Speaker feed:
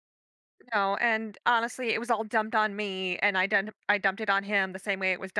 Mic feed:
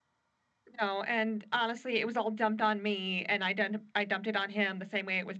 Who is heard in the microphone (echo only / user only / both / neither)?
echo only